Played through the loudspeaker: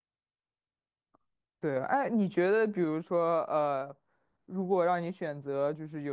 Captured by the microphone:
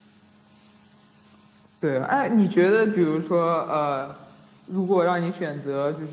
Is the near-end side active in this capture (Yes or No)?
No